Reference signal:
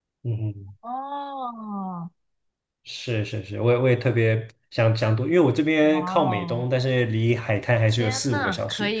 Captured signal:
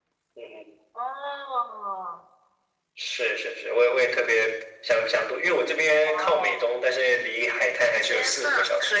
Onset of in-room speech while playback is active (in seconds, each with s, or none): none